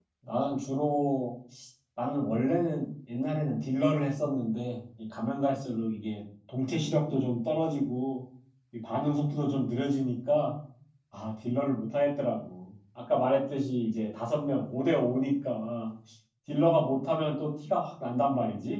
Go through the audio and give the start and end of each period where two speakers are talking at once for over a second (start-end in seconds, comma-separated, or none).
none